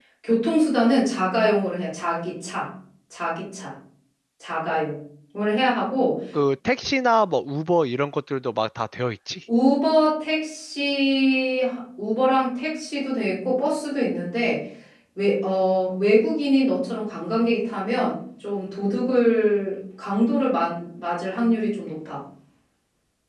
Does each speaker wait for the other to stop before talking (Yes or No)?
Yes